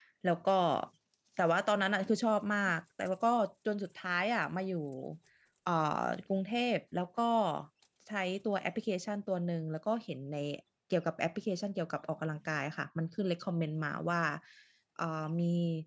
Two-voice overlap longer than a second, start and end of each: none

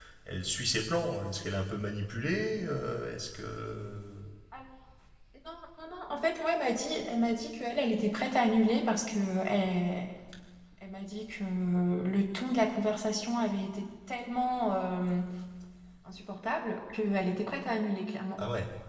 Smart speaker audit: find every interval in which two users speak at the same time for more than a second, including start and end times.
none

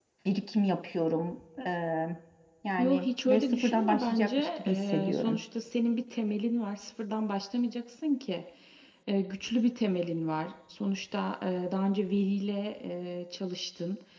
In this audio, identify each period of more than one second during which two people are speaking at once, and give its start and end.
2.8-5.4

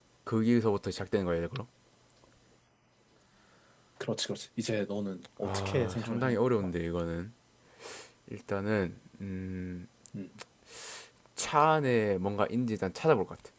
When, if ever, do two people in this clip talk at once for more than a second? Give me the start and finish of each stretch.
5.4-6.7

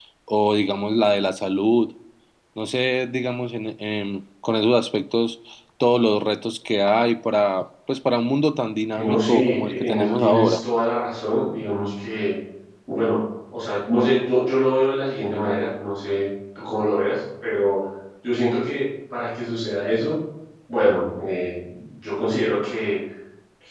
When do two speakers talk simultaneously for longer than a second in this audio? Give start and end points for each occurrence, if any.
8.9-10.6

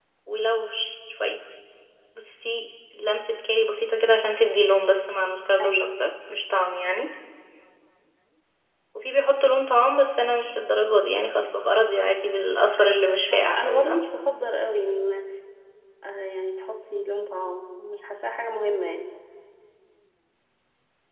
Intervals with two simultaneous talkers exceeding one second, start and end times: 12.8-14.0

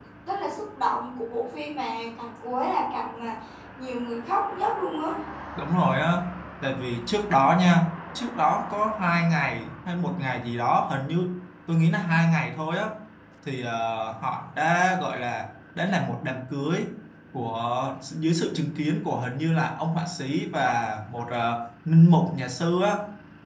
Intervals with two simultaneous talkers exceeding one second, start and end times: none

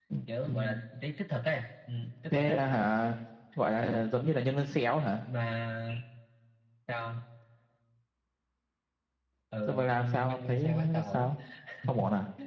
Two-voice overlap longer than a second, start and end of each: 9.7-11.3

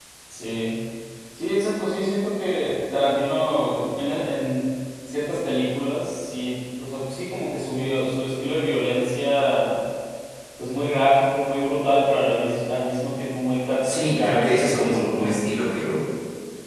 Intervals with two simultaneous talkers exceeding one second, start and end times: 13.8-15.3

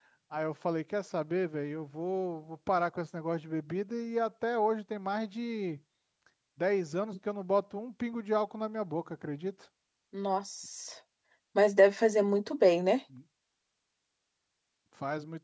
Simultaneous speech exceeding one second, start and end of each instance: none

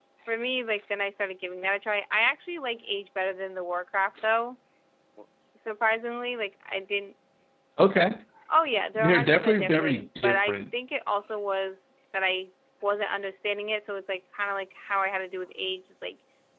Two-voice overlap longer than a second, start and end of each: 9.0-10.6

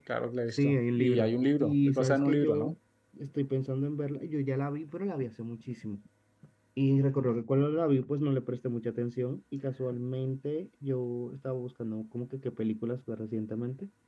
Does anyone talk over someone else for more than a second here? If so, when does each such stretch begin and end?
0.6-2.7

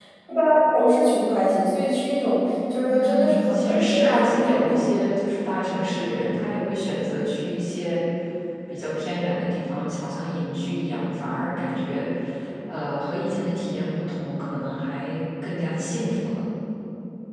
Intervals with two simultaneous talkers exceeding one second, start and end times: 2.9-4.8

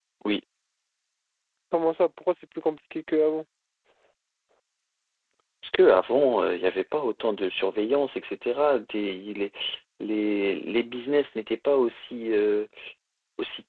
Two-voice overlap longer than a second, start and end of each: none

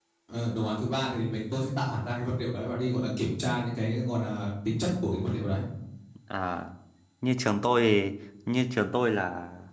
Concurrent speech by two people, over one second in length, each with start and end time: none

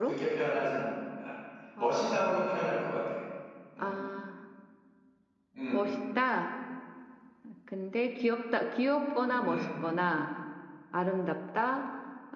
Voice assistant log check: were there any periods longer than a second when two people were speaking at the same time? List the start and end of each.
none

